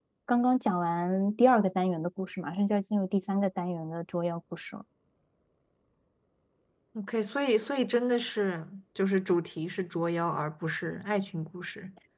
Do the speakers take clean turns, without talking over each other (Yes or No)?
Yes